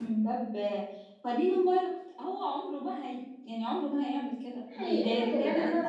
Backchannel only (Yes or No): No